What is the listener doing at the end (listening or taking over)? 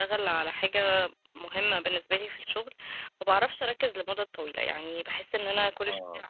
listening